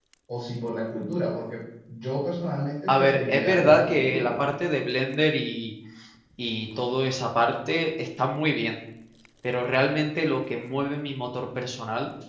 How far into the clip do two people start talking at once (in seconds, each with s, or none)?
2.9 s